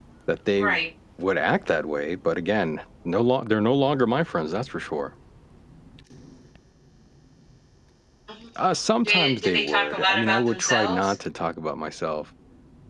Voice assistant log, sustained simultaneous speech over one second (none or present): present